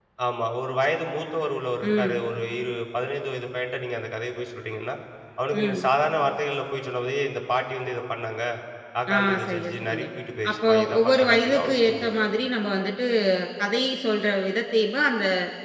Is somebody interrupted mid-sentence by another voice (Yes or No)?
Yes